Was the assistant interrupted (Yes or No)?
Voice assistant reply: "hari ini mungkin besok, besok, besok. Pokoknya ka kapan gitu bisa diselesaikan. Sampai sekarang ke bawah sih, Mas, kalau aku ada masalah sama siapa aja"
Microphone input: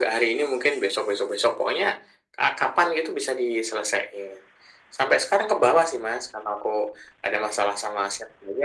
No